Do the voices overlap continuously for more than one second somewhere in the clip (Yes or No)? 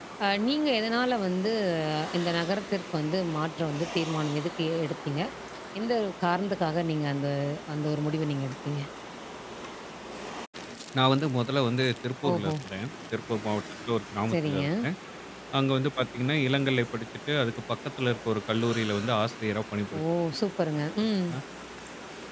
No